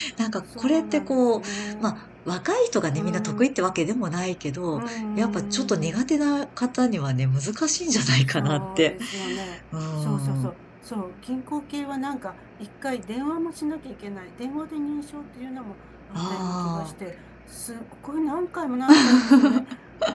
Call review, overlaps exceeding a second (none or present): present